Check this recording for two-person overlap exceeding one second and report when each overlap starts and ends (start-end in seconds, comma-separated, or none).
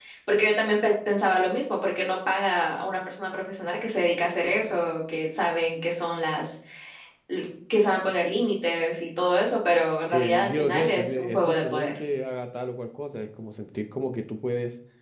10.1-11.9